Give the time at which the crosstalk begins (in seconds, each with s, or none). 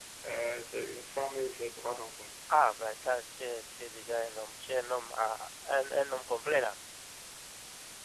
none